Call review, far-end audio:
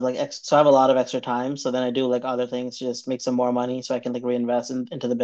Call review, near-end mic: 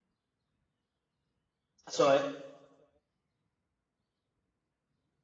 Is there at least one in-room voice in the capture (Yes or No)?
Yes